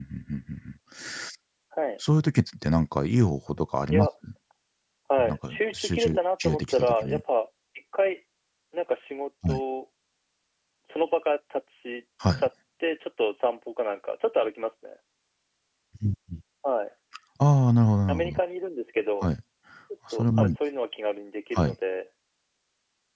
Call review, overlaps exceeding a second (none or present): present